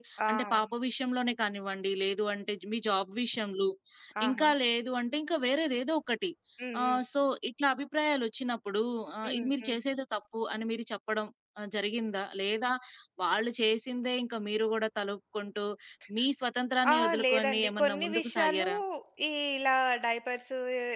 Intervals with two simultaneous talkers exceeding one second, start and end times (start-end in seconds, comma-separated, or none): 16.9-18.6